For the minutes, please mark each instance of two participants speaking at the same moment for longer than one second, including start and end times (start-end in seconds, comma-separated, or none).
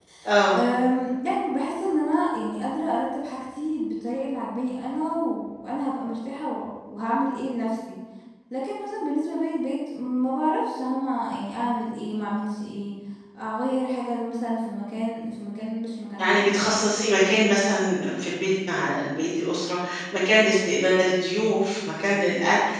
none